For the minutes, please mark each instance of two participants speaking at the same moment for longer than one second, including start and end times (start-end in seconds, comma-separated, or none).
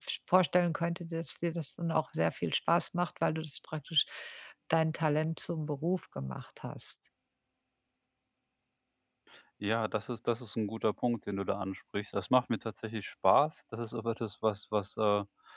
none